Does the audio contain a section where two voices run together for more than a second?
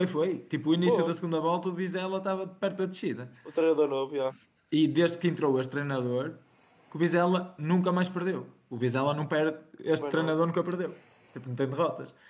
No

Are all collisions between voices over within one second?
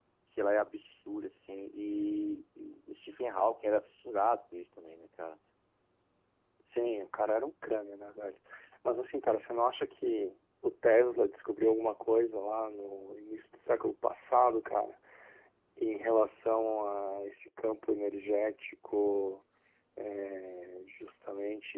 Yes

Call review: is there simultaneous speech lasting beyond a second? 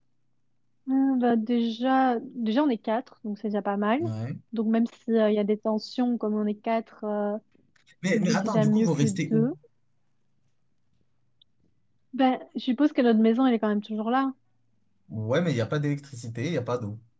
Yes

